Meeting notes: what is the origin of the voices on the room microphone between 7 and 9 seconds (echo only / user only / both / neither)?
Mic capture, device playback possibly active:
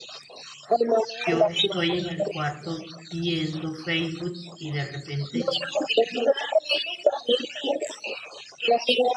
echo only